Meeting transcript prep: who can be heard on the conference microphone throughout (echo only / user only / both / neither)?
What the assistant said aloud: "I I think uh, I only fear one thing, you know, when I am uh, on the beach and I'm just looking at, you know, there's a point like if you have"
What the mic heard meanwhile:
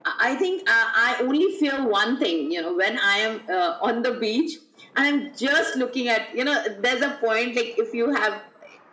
echo only